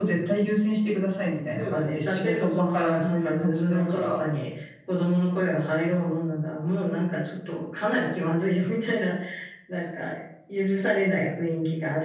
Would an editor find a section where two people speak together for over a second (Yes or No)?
Yes